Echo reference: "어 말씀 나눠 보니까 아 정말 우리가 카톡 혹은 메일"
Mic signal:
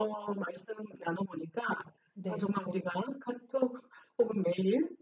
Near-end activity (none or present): present